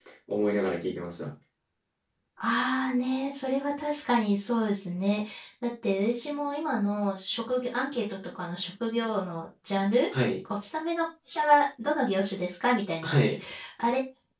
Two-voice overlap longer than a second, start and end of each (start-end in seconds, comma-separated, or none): none